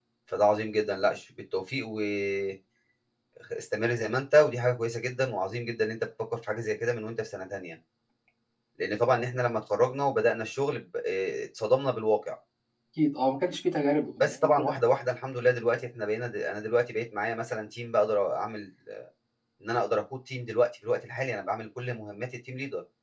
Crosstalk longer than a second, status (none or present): none